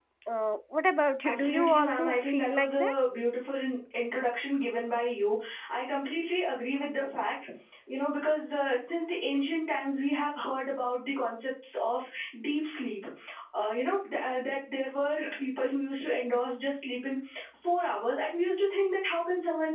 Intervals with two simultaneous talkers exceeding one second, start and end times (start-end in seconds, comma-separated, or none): 1.3-3.0